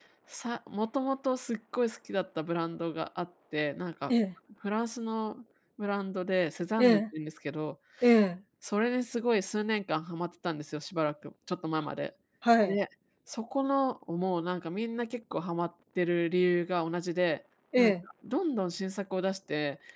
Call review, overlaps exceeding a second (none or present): none